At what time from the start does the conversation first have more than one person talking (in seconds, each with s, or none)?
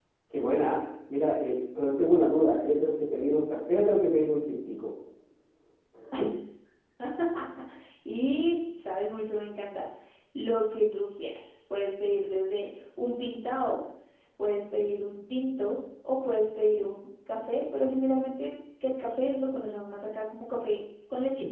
none